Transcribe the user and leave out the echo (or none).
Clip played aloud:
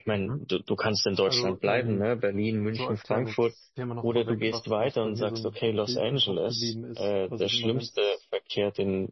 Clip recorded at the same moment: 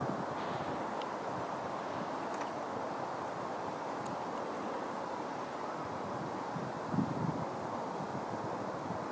none